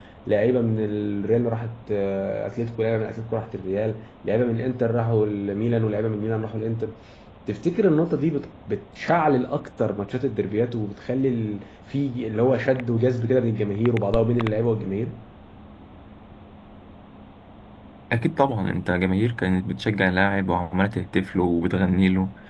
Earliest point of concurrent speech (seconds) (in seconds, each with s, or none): none